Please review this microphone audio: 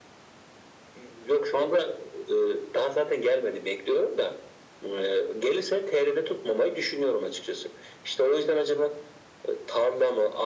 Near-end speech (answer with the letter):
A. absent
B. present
A